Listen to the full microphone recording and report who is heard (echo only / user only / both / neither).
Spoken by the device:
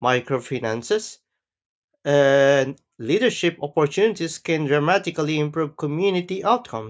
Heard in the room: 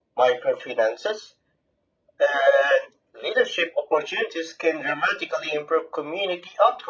echo only